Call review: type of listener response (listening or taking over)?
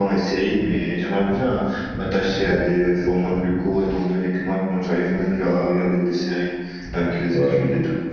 taking over